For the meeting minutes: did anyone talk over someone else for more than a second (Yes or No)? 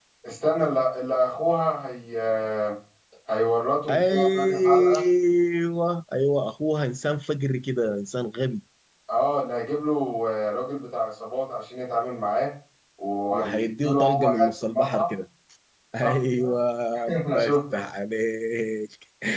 Yes